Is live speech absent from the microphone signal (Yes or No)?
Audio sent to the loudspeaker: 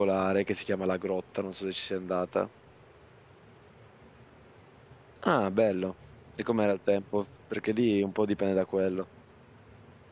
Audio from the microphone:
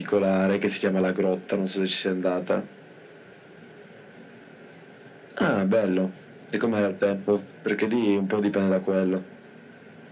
Yes